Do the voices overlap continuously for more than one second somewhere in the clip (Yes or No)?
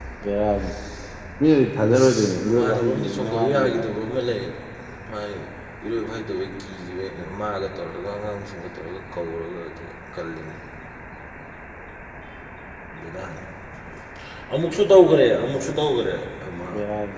Yes